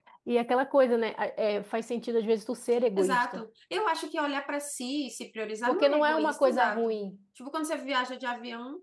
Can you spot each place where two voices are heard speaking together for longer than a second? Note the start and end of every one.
5.7-7.0

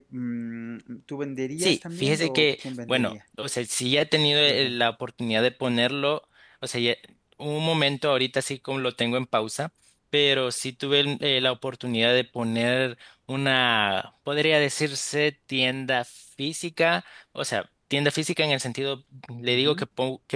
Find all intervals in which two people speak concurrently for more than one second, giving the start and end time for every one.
1.6-3.1

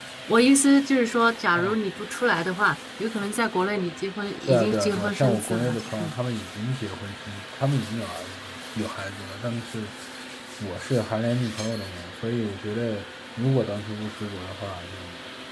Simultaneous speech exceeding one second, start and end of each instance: 4.5-6.1

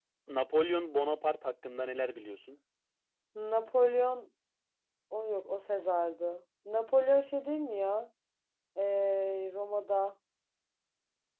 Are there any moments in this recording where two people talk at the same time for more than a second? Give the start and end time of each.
none

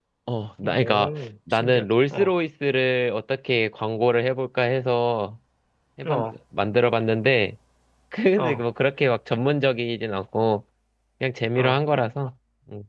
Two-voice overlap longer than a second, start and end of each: 0.6-2.3

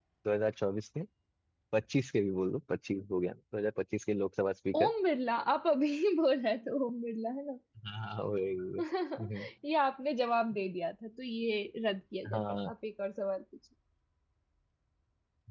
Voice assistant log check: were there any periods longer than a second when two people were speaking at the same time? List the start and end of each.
none

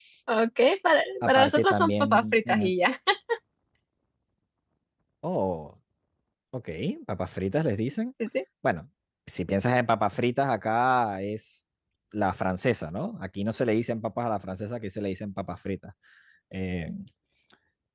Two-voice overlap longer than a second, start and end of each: 1.2-2.7

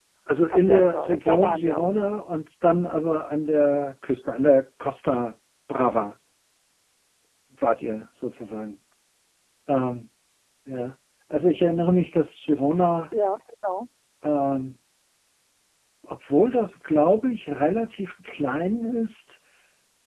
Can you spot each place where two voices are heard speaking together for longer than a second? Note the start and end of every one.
0.5-1.9

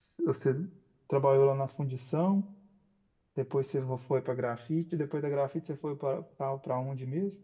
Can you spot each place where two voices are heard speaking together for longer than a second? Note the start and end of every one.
none

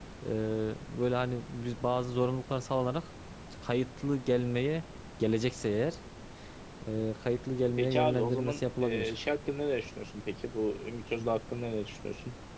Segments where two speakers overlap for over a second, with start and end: 7.8-9.1

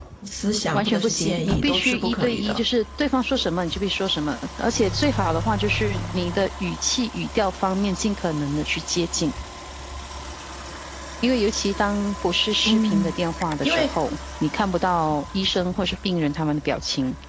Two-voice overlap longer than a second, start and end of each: 0.7-2.6

